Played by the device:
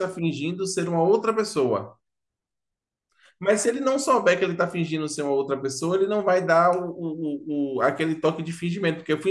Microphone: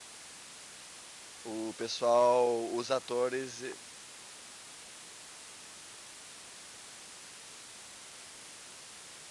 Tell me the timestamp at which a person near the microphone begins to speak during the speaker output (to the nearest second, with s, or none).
1 s